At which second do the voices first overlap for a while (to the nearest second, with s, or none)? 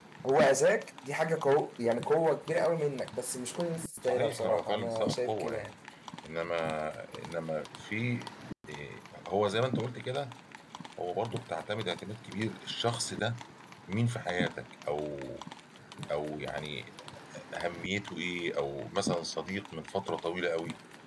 4 s